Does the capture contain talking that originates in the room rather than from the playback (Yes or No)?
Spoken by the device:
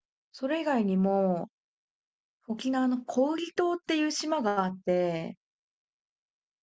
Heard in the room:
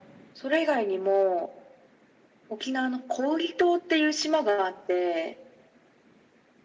No